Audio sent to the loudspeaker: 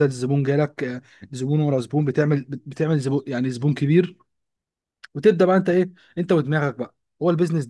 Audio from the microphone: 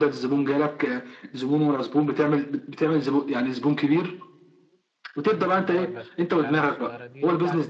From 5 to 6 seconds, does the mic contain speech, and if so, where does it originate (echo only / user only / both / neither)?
both